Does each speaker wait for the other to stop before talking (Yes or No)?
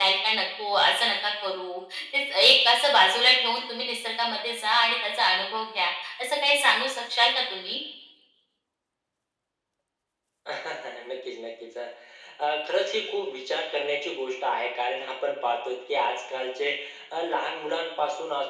Yes